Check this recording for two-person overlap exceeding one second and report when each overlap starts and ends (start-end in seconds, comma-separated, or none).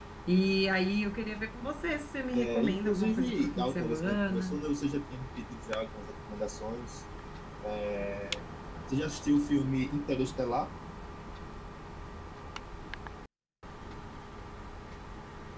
2.3-4.6